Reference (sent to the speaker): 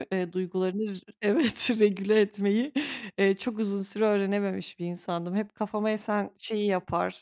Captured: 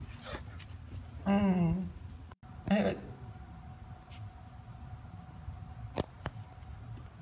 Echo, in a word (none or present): none